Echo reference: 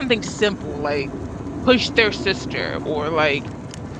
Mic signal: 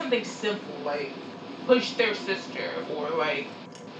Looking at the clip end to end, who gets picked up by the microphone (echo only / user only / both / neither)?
echo only